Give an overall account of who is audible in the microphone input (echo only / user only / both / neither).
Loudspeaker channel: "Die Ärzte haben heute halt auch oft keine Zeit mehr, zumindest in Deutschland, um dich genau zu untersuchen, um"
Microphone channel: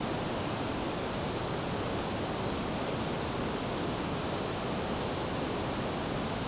neither